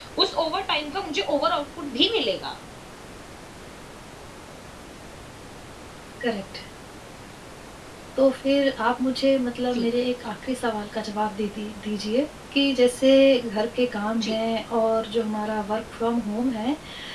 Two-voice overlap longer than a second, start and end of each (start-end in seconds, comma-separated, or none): none